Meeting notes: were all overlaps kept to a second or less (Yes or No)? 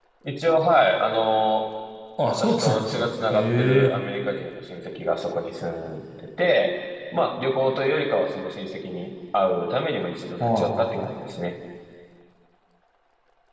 No